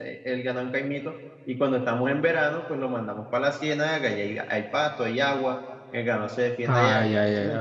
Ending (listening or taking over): taking over